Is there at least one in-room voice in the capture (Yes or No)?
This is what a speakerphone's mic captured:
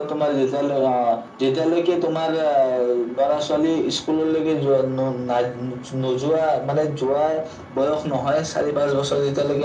No